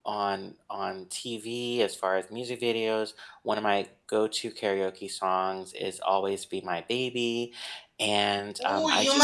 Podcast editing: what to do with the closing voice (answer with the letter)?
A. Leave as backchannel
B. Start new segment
B